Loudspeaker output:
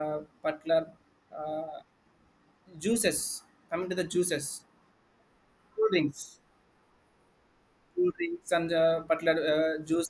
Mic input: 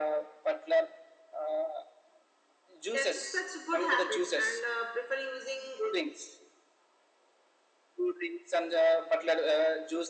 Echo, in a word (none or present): present